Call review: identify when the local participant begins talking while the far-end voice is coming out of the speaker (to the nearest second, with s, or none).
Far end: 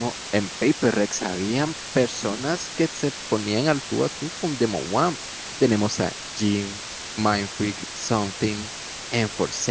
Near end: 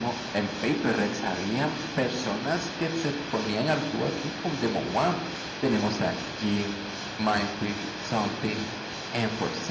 none